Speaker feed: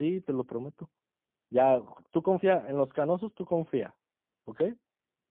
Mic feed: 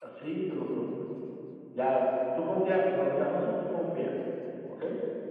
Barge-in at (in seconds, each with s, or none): none